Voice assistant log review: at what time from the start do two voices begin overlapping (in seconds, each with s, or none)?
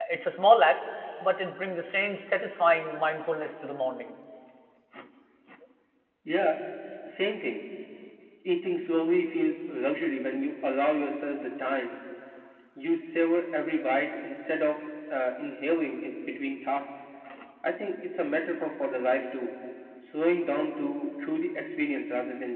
none